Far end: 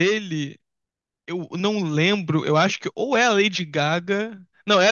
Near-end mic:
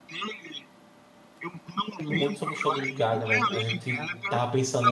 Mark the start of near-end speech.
2.1 s

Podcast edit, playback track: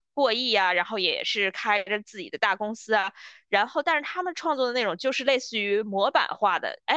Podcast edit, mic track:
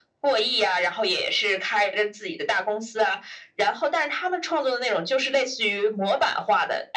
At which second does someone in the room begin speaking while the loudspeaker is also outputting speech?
none

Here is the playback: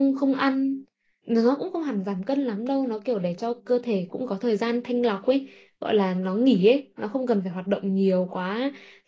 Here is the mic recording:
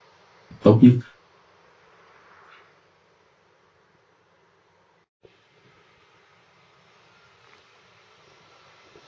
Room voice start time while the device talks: 0.6 s

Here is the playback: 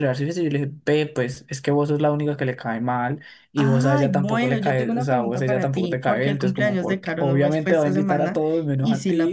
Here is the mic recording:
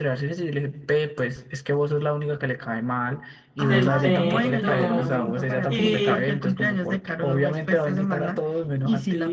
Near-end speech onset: 3.6 s

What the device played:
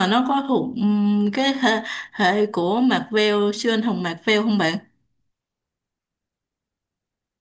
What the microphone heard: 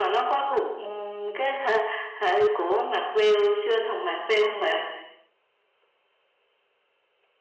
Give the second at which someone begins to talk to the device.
none

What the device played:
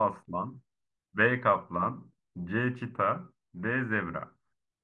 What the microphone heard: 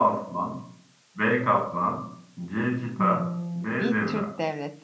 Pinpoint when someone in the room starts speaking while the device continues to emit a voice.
3.0 s

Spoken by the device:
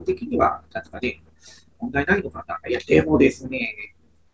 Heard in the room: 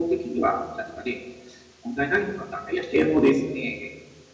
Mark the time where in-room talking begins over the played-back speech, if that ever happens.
none

